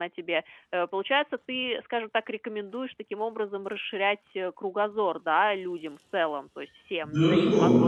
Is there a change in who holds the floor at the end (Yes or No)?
Yes